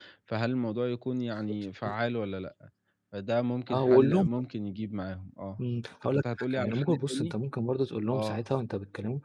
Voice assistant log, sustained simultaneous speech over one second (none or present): present